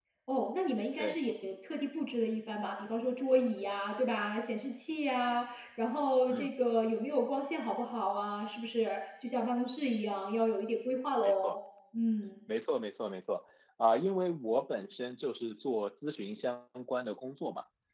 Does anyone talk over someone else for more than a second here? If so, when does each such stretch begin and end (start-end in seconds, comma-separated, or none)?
none